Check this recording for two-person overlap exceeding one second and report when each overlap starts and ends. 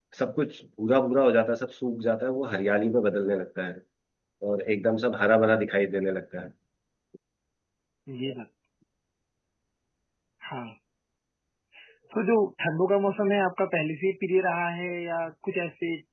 none

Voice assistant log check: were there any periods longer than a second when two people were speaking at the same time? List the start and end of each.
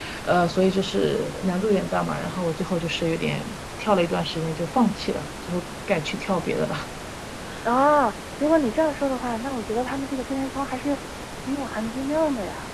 none

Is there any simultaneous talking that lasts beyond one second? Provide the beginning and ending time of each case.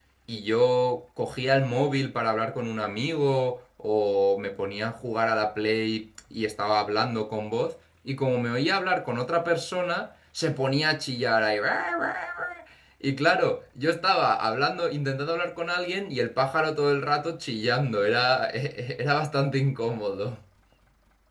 none

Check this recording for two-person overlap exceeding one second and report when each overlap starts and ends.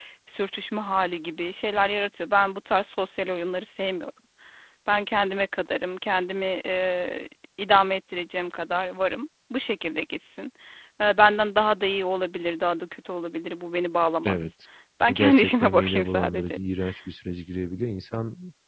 15.1-16.6

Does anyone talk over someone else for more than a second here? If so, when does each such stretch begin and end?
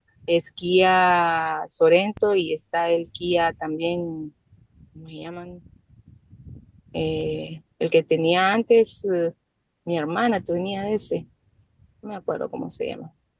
none

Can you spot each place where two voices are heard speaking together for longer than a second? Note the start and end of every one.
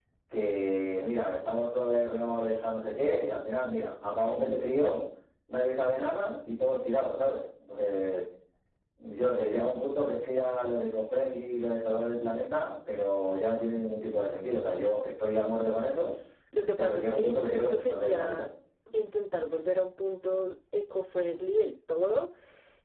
16.8-18.4

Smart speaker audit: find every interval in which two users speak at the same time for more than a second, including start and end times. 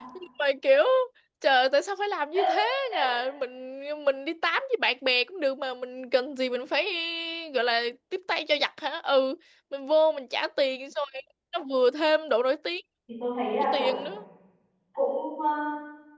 none

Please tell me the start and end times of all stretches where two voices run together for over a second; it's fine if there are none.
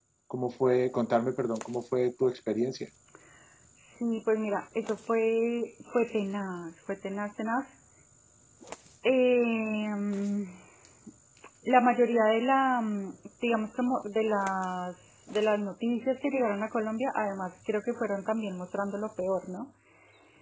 none

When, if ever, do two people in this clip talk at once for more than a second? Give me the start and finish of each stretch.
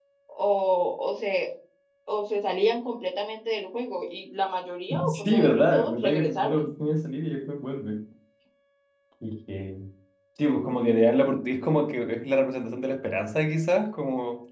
5.1-6.7

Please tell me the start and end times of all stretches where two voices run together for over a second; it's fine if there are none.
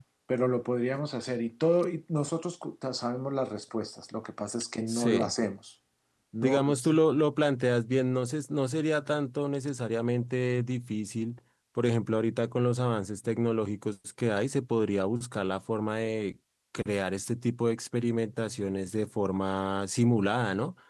none

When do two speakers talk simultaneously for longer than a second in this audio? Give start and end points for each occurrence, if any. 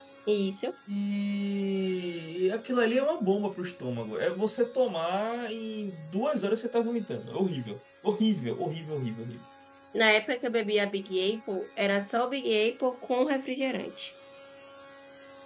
none

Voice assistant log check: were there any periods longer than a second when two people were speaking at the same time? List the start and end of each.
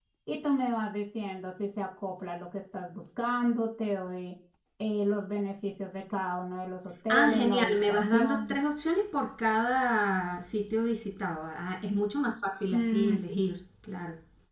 7.1-8.6

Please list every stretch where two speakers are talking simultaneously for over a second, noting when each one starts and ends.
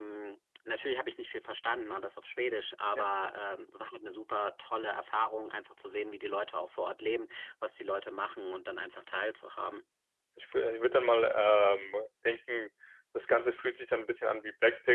none

